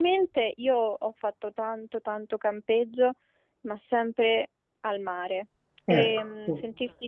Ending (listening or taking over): listening